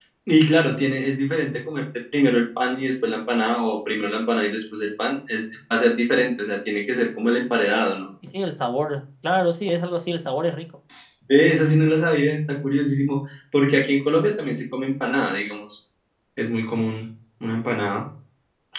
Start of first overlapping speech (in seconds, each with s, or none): none